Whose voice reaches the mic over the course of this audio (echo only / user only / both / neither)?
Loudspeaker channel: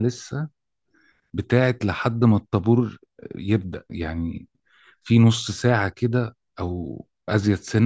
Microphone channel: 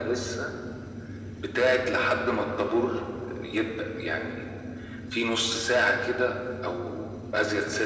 echo only